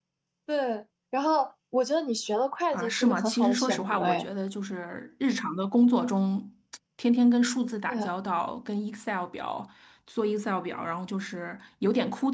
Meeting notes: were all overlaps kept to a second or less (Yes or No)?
No